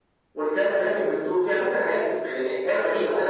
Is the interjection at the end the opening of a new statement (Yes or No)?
No